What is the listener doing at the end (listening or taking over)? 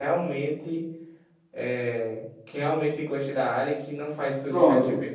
taking over